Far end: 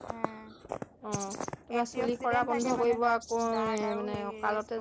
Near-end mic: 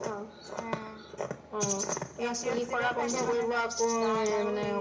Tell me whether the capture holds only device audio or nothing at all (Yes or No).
Yes